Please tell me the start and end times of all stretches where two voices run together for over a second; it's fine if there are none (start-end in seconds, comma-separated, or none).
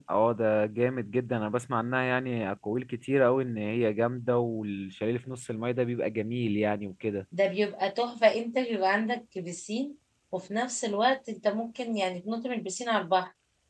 none